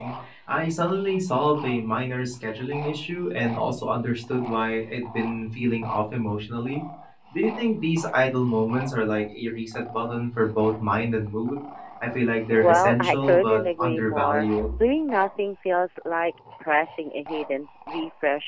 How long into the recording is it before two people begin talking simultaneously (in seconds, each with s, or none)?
12.5 s